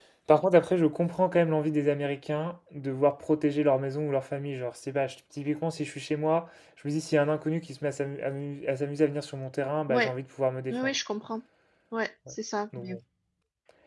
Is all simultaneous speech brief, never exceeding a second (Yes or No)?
Yes